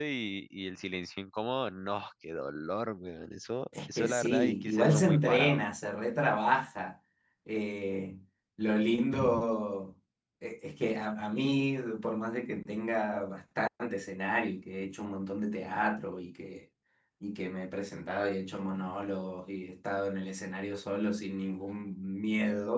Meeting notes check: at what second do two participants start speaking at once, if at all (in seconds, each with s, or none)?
4.0 s